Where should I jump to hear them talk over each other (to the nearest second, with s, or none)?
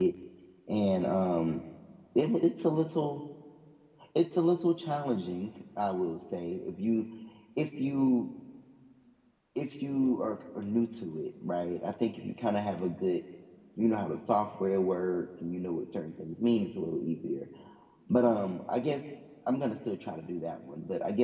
none